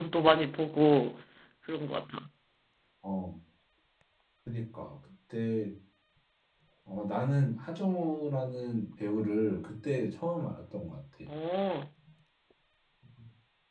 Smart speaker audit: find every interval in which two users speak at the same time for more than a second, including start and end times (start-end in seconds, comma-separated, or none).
none